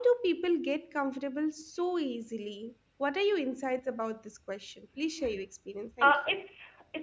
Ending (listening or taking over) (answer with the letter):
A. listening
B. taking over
B